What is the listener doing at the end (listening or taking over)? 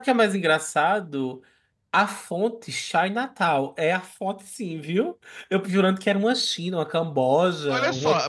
taking over